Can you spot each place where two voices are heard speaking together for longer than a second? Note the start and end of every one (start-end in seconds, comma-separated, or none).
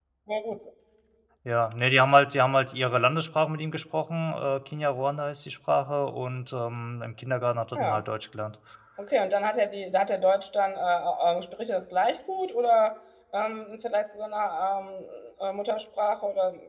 none